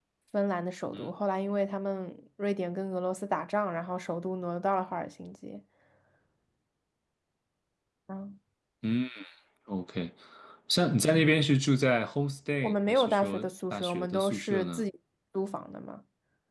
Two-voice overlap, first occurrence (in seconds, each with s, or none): 12.6 s